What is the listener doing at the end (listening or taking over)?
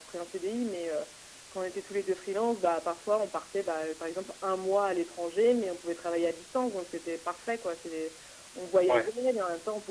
listening